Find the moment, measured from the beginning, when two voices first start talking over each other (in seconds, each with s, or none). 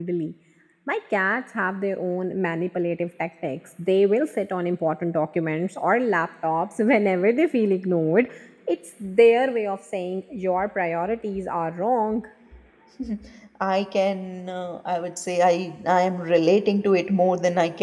none